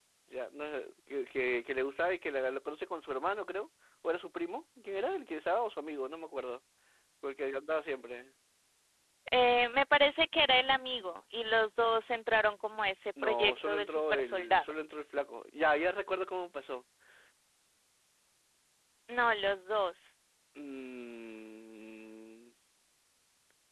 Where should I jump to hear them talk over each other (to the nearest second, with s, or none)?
13 s